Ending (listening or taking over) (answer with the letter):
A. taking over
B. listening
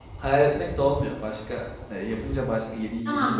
B